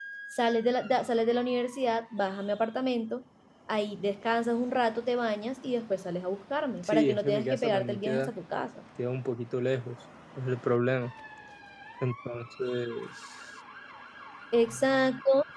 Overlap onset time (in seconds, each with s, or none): 6.8 s